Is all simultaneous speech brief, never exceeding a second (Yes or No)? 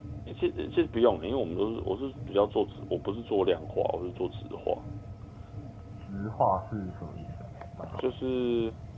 Yes